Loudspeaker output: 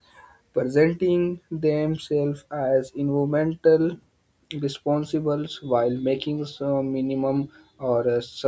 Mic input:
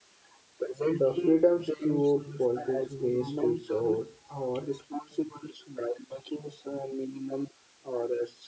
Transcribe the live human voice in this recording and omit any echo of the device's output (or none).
The freedoms to police waste resource or